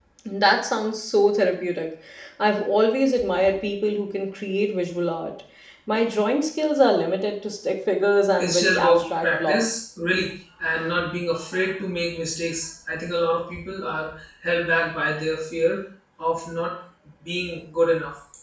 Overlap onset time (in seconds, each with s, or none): 8.4 s